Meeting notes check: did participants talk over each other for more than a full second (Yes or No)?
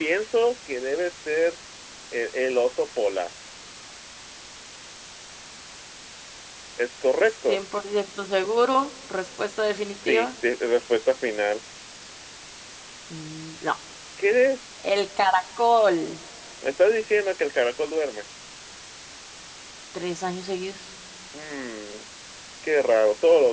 No